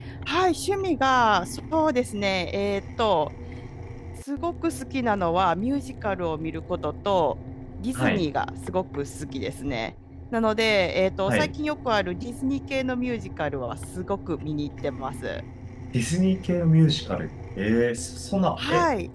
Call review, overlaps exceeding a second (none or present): none